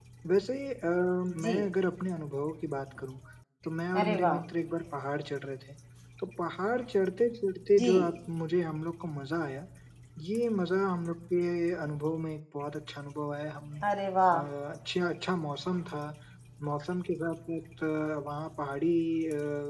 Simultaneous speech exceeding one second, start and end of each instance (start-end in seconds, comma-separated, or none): none